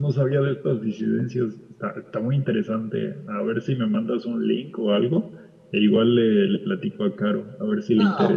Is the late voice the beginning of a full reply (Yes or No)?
Yes